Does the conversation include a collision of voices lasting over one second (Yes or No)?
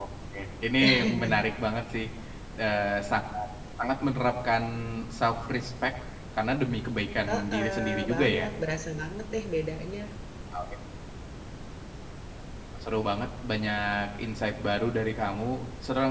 Yes